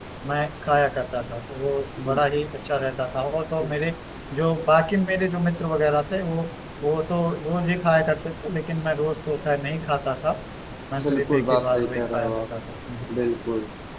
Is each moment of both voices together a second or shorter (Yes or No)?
No